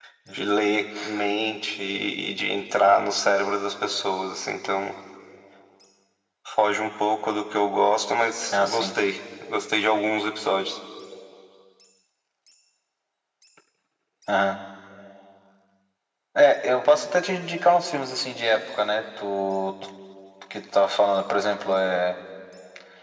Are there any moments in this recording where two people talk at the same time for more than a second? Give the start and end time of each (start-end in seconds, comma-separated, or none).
none